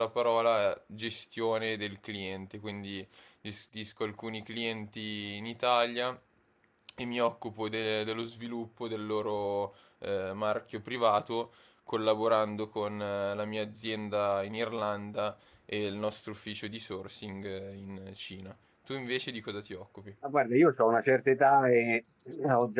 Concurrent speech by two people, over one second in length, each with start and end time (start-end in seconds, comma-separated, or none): none